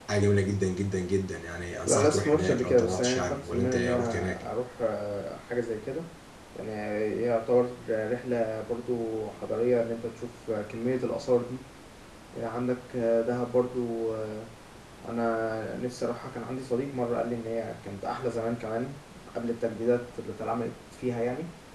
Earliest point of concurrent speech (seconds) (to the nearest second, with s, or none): 2 s